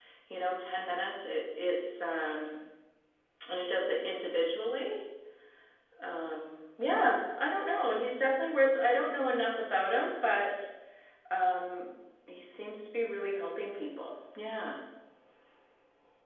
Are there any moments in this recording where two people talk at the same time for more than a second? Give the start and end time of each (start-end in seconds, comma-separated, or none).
none